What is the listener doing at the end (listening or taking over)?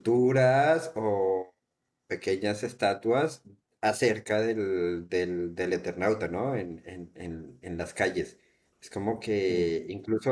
listening